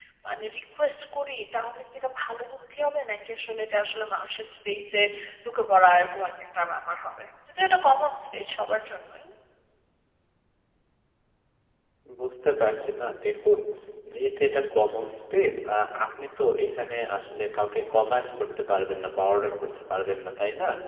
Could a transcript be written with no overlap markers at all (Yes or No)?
Yes